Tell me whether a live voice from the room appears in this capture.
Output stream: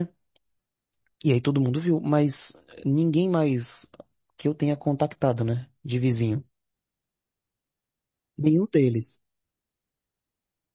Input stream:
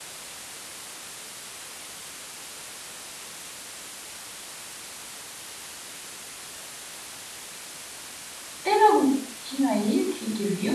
Yes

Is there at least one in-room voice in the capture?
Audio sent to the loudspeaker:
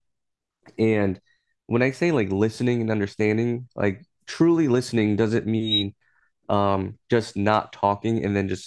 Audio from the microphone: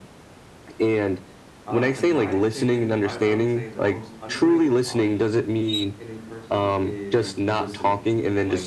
Yes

